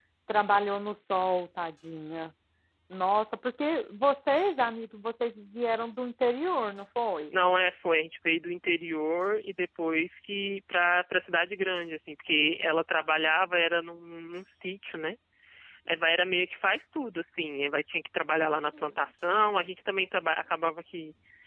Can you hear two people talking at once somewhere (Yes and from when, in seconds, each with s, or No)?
No